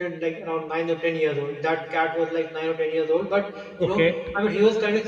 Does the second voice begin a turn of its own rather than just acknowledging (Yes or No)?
No